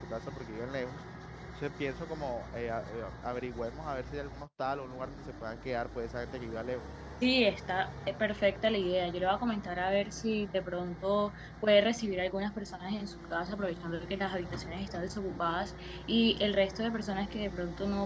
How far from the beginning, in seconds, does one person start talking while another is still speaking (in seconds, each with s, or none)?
none